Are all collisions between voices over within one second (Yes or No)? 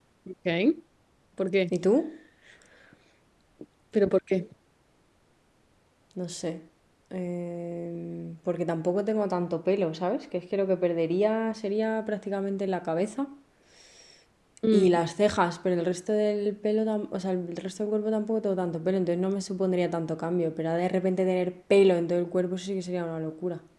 Yes